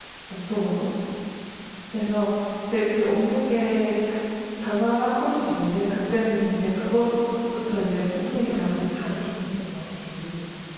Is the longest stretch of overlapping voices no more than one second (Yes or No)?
No